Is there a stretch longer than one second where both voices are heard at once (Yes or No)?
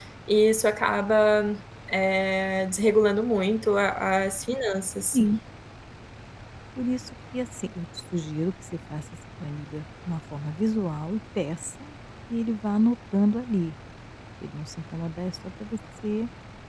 No